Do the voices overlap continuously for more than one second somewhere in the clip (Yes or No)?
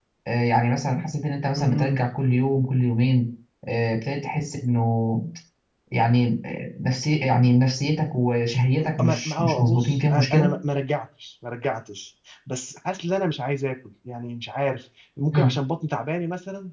Yes